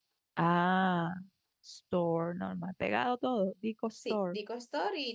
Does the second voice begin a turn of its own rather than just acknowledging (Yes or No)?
Yes